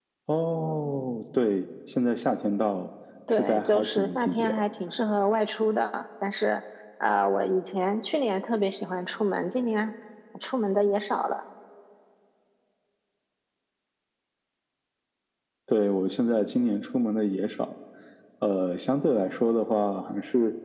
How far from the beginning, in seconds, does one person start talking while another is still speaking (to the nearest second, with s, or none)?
3 s